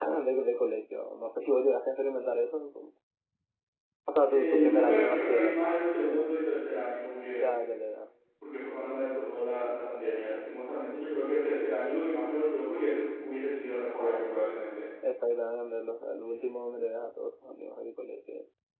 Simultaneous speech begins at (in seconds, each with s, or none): 4.2 s